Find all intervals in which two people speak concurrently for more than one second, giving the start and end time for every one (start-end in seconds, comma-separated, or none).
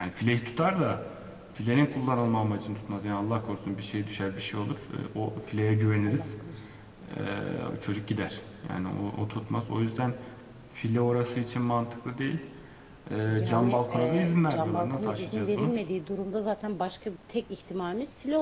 13.3-15.7